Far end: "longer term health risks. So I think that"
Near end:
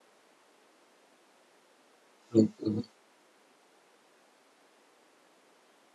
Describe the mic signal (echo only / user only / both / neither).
user only